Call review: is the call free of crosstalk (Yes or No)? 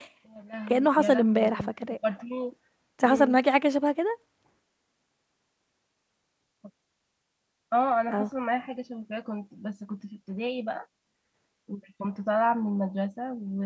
No